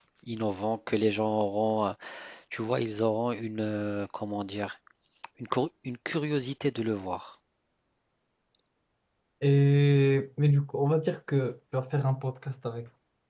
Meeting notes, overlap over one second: none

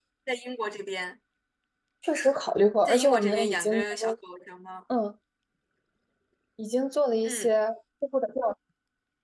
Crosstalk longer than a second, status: present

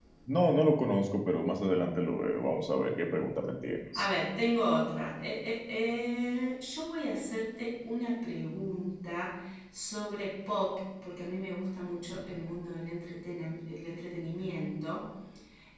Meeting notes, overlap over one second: none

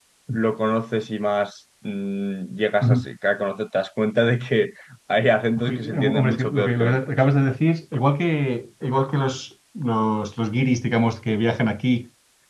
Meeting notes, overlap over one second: present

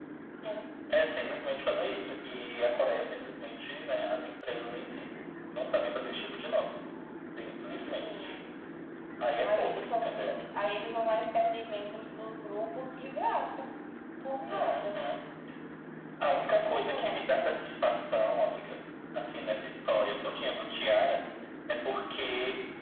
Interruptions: present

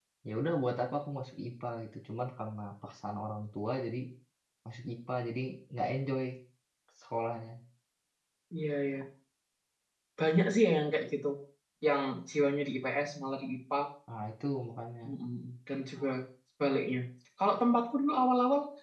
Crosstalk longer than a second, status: none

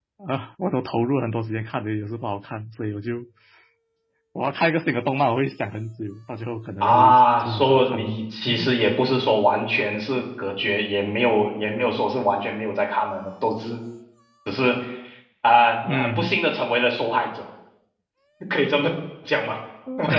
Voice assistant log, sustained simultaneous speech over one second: present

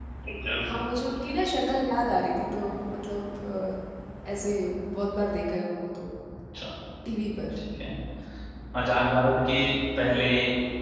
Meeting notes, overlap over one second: none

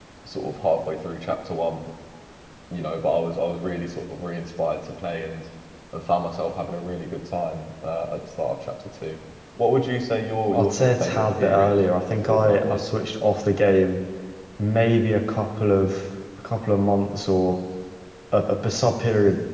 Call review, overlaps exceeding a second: present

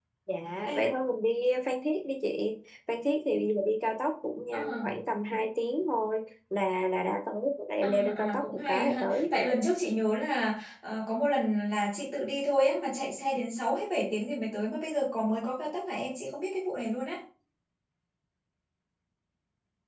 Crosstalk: present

